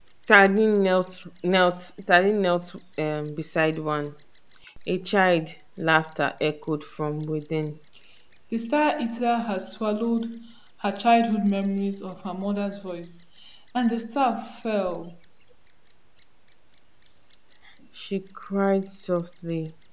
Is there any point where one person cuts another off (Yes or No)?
No